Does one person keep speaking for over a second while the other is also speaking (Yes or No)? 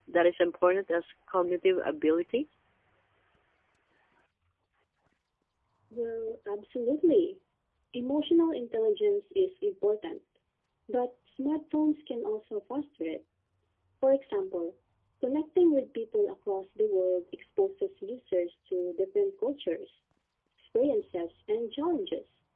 No